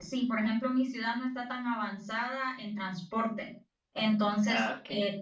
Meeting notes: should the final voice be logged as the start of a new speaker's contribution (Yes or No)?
No